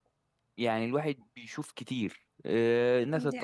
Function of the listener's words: listening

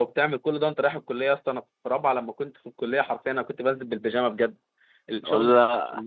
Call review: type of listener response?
listening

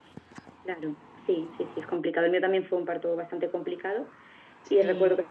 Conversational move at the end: listening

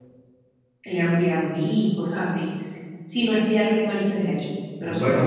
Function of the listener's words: taking over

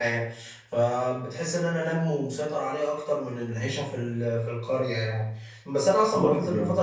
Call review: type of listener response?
listening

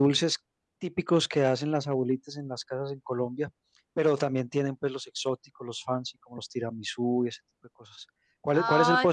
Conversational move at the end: listening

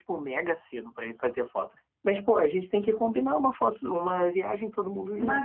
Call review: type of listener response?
taking over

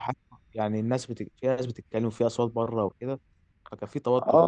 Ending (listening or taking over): taking over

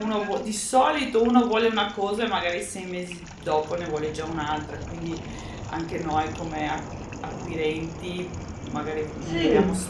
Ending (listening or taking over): listening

